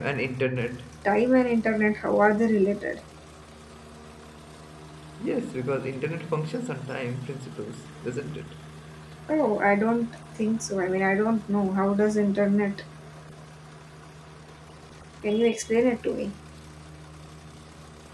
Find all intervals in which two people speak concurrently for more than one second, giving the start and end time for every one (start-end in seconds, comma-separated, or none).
none